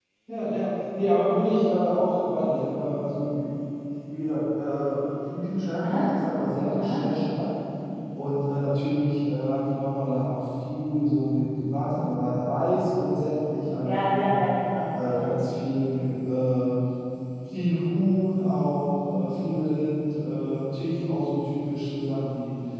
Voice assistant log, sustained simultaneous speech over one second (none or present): none